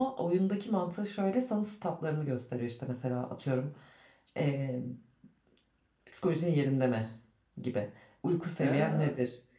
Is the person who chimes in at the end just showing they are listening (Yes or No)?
No